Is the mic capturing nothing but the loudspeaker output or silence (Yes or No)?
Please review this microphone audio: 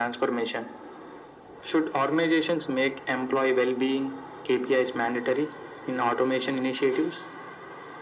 Yes